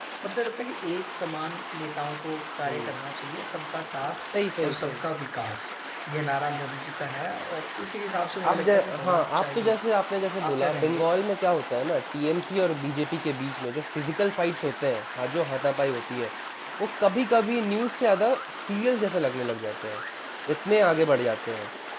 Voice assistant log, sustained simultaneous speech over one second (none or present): present